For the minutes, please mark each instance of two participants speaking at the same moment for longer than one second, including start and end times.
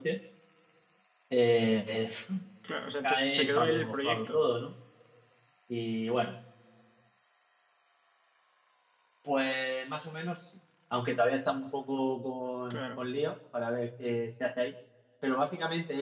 3.0-4.4

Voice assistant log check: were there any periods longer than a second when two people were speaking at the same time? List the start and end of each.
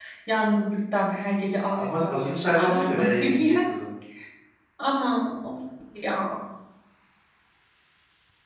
1.7-3.6

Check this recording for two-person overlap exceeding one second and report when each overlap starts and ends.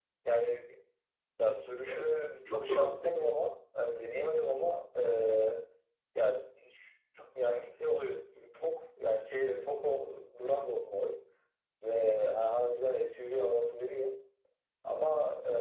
1.7-3.3

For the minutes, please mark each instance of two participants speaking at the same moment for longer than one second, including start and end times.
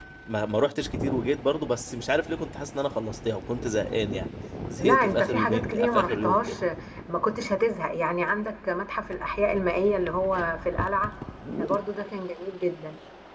4.8-6.5

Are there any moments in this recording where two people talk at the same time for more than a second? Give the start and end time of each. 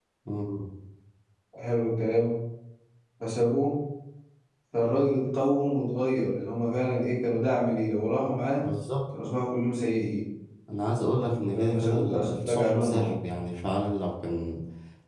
11.5-13.2

